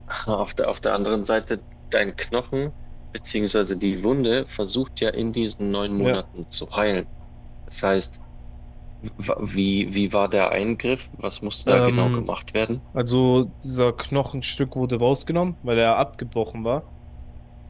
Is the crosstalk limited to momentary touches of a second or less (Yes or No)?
Yes